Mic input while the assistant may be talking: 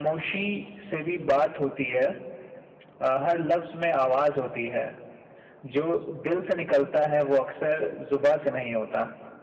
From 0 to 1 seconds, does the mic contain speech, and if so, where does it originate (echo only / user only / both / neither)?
echo only